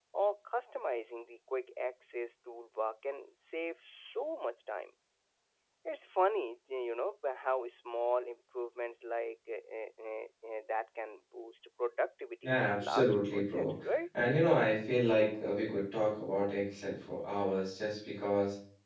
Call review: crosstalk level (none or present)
present